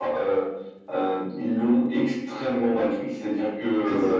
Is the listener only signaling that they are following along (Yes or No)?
Yes